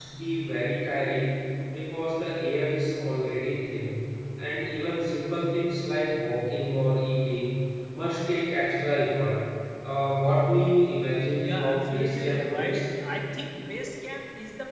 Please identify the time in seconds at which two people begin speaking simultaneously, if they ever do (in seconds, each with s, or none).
11.4 s